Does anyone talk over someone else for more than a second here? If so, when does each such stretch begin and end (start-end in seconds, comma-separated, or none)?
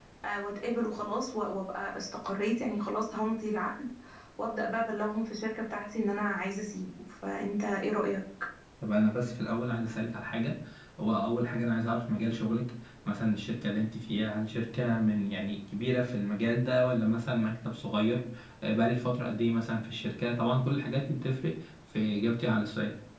none